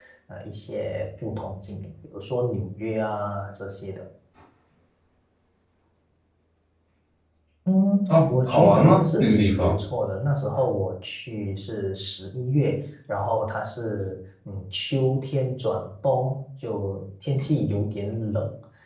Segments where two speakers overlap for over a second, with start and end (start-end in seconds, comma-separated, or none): 8.1-9.8